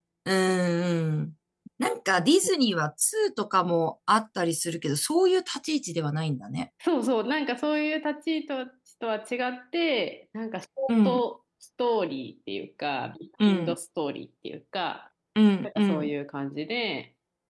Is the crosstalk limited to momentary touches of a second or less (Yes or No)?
Yes